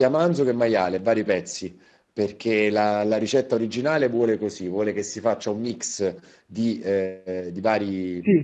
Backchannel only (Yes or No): Yes